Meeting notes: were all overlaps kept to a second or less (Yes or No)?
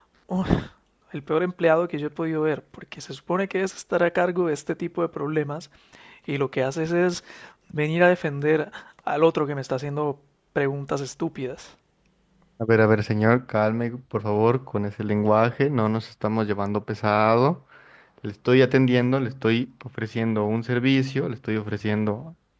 Yes